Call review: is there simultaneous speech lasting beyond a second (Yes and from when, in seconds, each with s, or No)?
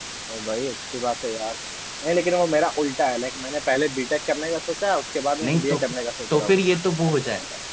No